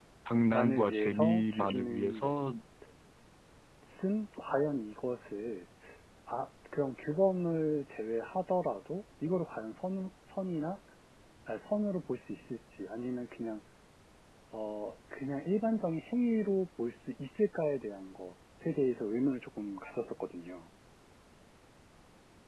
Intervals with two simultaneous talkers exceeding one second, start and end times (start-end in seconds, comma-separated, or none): 0.5-2.2